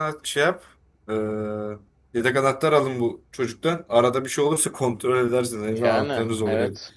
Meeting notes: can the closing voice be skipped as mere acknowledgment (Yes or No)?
No